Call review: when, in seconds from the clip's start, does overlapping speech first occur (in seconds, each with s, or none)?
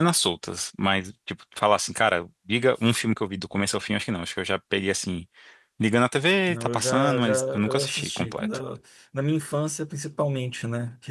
6.5 s